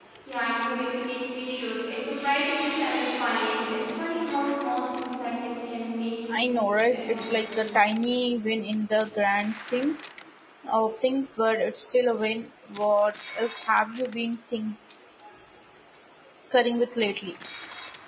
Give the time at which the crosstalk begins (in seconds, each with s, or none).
6.3 s